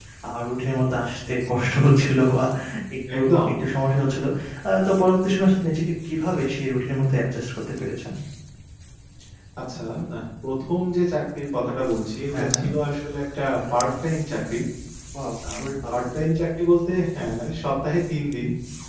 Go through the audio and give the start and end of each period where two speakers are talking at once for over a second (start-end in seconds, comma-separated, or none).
none